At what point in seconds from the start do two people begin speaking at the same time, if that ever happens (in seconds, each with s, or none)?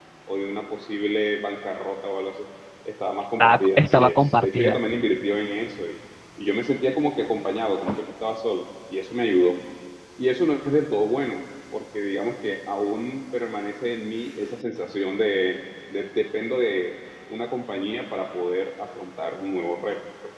3.4 s